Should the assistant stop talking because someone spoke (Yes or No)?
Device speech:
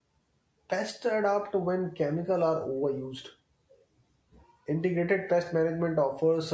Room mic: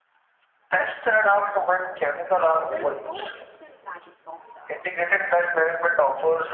Yes